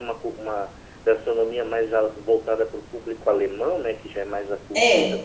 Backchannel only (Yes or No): Yes